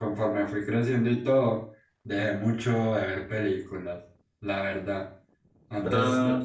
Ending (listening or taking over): listening